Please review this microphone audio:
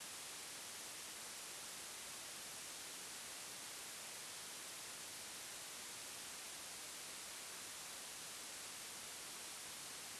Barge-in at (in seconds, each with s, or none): none